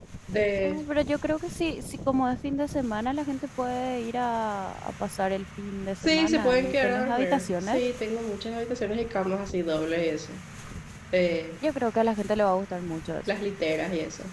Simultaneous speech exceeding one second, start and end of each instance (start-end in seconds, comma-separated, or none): 6.0-7.8